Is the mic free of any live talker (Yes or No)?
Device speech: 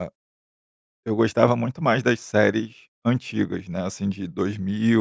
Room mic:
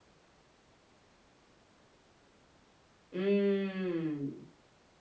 No